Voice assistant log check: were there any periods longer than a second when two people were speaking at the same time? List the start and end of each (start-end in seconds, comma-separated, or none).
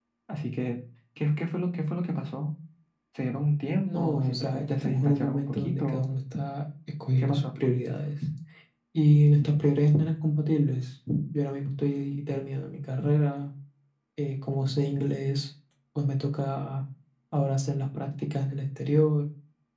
3.9-6.1